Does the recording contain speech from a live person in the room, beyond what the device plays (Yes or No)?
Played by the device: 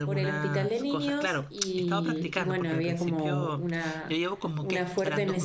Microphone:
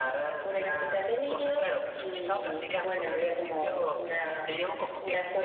No